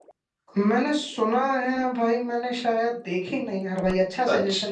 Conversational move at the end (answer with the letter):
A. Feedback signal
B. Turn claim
B